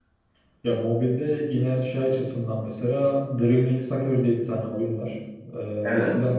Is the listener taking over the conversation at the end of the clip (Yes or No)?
No